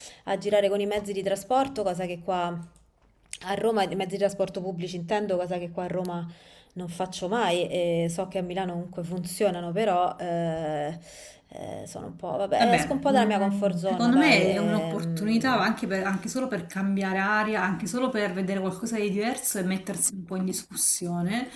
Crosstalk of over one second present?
Yes, from 12.6 s

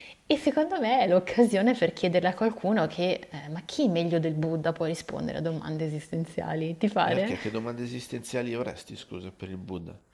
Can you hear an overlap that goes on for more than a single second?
No

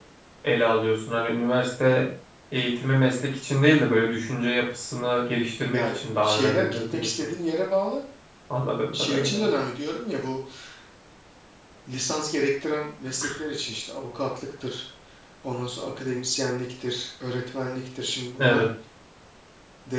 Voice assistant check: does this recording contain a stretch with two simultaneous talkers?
Yes, from 5.7 s

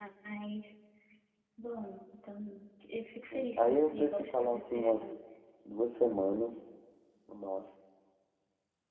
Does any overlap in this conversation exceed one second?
Yes, from 3.3 s

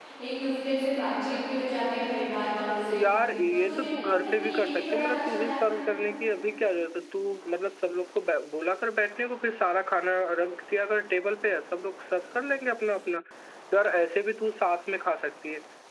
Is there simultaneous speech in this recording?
Yes, from 3.5 s

